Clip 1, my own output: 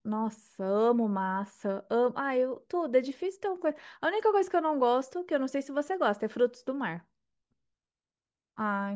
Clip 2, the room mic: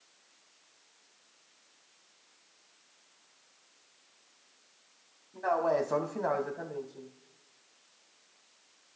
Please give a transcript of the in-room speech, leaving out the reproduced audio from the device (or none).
Não, é só no final, exatamente.